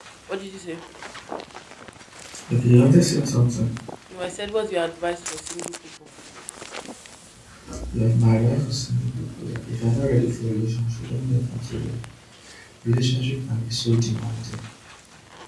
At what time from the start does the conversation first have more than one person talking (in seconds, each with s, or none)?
none